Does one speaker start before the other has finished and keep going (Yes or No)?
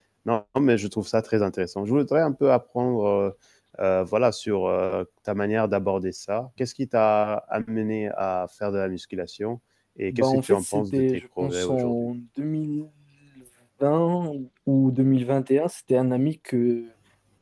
Yes